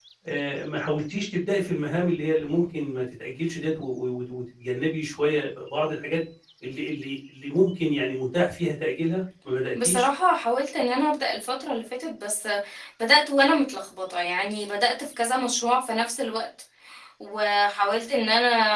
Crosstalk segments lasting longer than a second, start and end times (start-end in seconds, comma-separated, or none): none